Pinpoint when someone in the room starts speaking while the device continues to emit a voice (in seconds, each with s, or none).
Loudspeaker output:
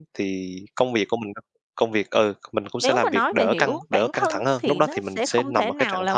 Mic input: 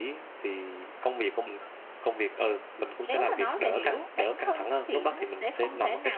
none